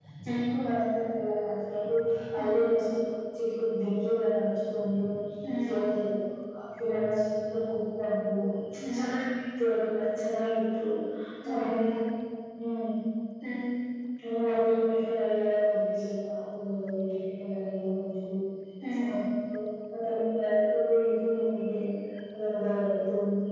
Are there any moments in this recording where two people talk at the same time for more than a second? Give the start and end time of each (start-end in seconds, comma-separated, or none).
none